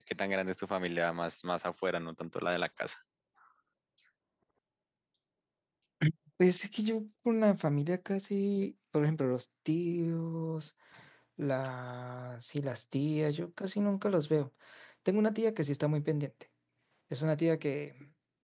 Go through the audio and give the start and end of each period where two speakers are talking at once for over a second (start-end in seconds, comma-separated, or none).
none